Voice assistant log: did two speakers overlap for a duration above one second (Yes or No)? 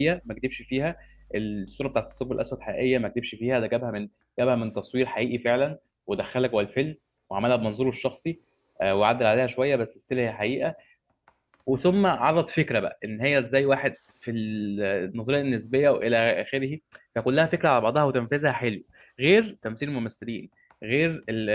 No